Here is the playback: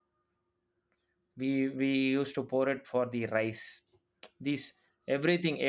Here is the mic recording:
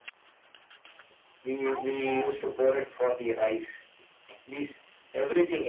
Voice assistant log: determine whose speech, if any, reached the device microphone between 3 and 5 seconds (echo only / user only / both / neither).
echo only